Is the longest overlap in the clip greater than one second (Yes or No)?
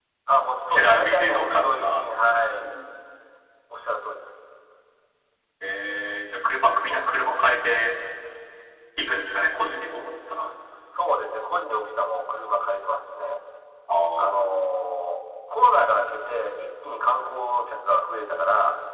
Yes